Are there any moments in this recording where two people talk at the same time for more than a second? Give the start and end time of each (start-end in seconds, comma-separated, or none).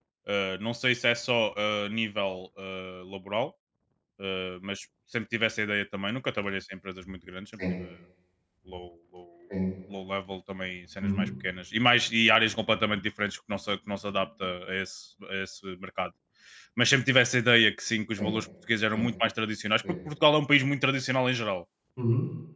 none